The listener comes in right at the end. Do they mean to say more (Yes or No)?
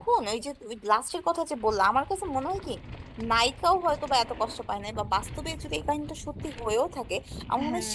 No